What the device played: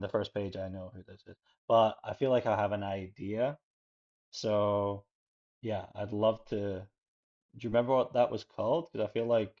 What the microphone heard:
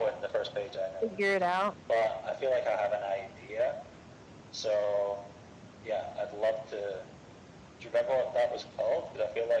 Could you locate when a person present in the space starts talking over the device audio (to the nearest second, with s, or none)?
1 s